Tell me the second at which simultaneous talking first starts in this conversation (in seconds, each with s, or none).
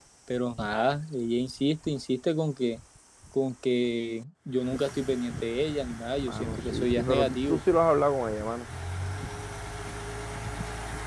6.2 s